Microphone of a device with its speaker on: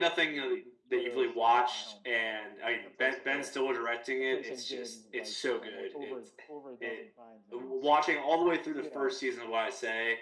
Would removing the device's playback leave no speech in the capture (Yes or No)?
No